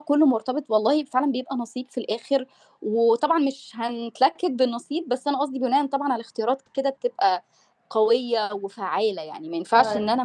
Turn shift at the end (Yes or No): No